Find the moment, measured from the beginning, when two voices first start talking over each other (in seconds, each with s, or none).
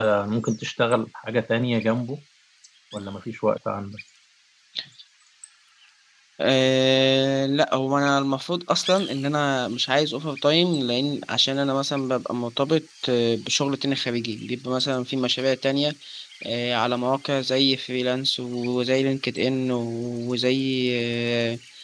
none